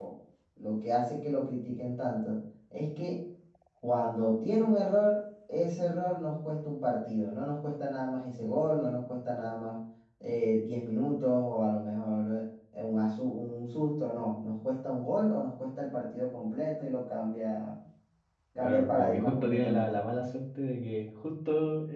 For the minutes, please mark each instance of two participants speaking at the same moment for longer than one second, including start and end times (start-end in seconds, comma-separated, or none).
18.6-20.0